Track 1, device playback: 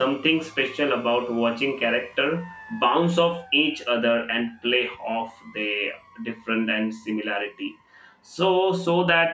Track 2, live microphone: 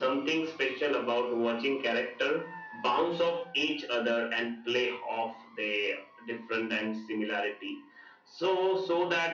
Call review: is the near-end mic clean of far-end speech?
No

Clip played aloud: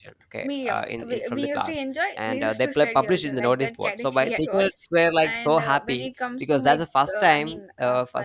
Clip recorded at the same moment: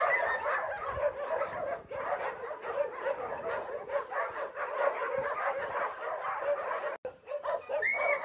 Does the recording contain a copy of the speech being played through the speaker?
No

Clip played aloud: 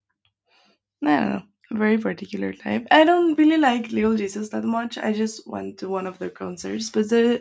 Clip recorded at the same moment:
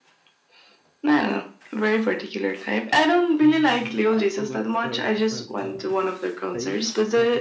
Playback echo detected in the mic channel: Yes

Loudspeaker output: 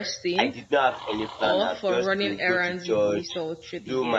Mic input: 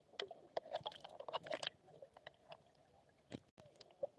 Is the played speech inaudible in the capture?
Yes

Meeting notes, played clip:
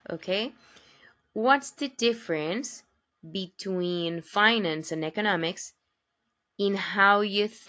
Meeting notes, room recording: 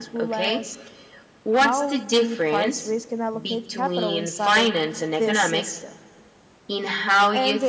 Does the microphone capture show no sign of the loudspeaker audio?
No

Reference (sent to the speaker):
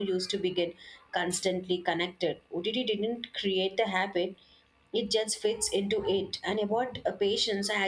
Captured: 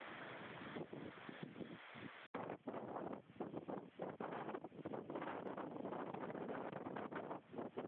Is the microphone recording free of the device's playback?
Yes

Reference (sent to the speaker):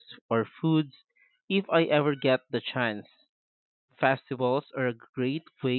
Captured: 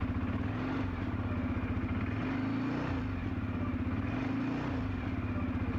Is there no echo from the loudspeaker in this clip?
Yes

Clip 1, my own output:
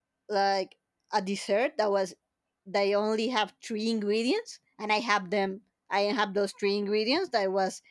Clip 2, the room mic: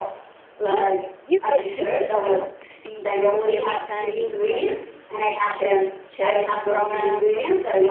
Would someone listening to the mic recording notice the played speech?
Yes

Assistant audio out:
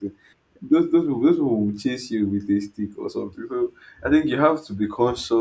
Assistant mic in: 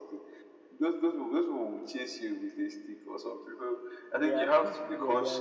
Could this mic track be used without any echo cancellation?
No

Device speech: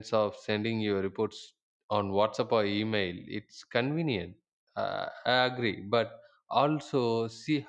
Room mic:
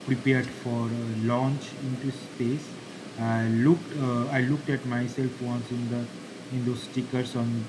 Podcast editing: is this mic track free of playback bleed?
Yes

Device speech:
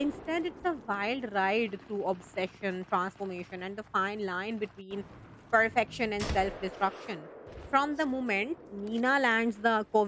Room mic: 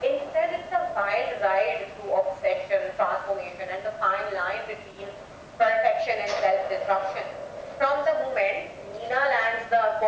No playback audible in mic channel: No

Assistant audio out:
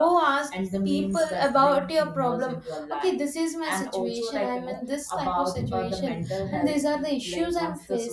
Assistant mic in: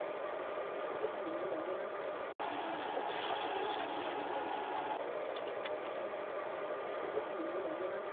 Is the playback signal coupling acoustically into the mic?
No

